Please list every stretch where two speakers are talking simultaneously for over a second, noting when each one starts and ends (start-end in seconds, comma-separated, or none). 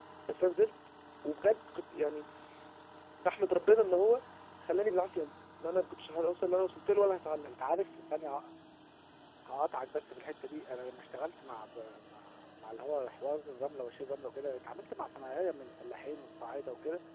none